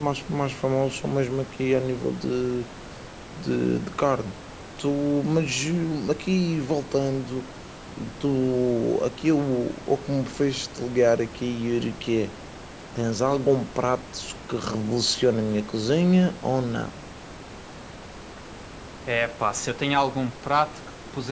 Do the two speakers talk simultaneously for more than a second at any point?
No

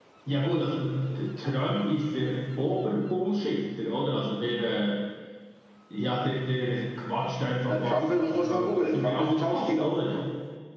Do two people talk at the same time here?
Yes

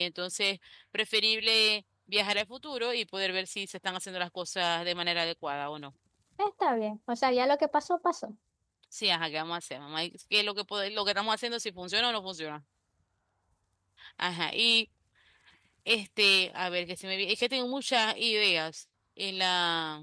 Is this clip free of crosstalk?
Yes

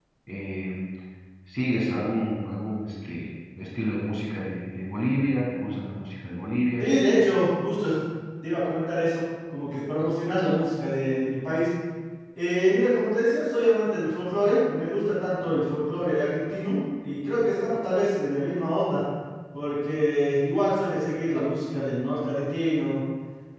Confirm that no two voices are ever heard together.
Yes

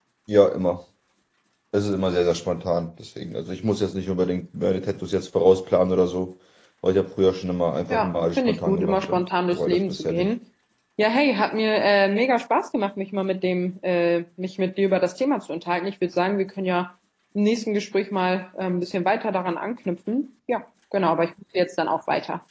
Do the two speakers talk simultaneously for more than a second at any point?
Yes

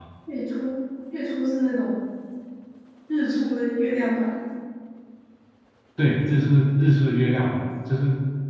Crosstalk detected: No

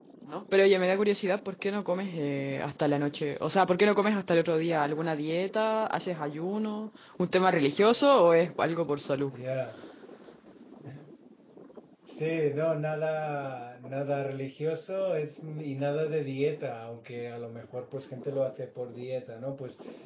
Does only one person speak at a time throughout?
Yes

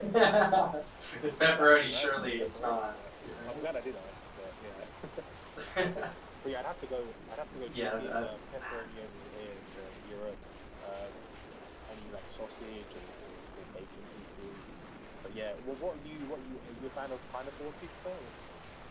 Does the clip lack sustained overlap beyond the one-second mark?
No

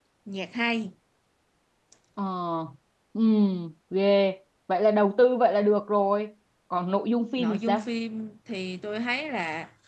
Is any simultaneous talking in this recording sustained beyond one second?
No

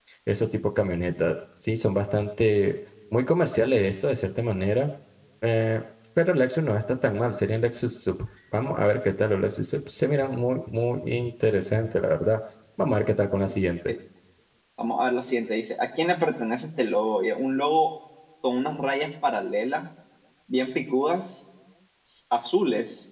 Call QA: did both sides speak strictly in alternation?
Yes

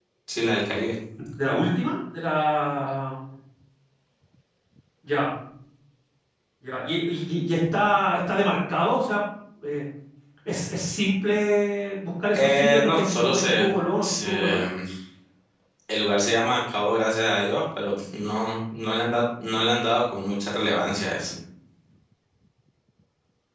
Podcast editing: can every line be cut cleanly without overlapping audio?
No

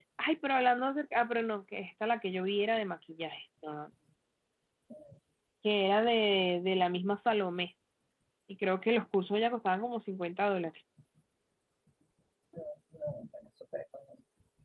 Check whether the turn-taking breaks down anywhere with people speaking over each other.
No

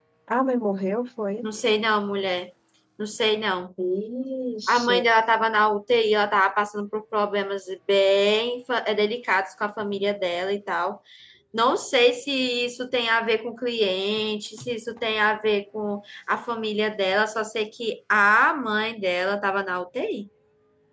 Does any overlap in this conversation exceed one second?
No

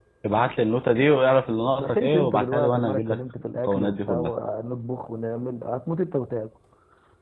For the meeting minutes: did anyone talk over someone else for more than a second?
Yes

